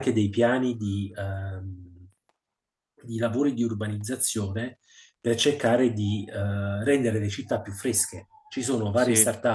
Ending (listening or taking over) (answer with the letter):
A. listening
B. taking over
A